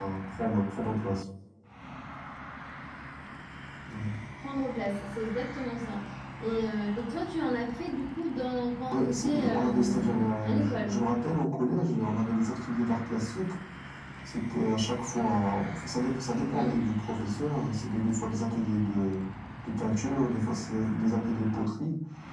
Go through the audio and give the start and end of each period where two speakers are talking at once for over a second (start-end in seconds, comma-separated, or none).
8.9-11.0